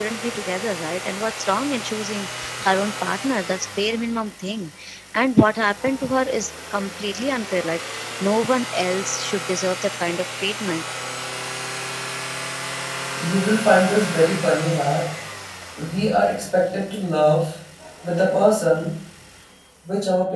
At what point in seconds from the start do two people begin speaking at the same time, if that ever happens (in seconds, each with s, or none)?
none